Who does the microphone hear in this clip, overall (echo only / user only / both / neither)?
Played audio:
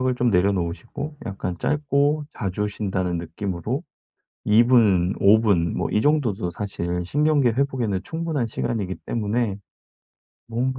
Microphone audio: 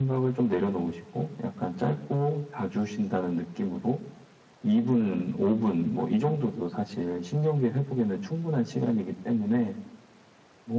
echo only